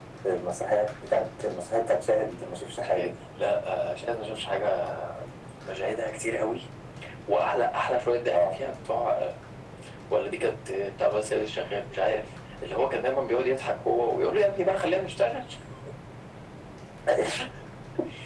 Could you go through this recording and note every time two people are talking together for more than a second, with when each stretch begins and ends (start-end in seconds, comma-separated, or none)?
none